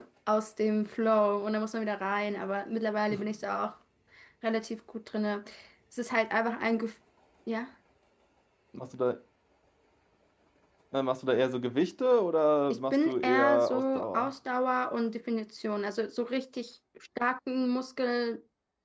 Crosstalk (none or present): present